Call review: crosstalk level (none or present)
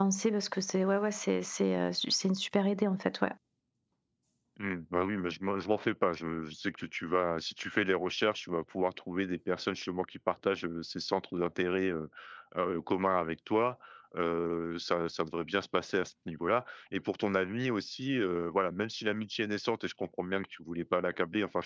none